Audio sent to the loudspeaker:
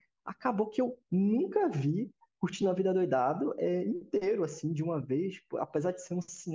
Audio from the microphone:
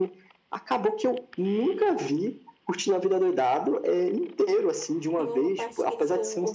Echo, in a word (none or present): present